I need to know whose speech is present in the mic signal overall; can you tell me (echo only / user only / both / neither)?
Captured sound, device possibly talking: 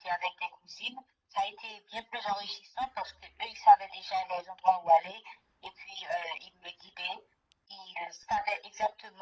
echo only